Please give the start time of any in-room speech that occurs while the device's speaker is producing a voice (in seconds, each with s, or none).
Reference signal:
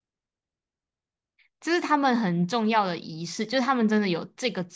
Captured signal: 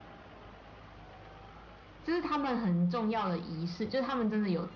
none